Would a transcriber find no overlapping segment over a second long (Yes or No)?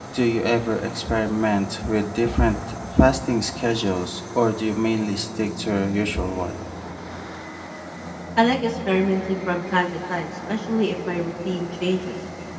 Yes